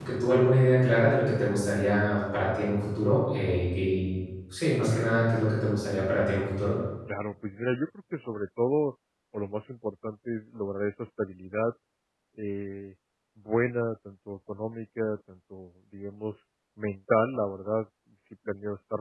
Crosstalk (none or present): none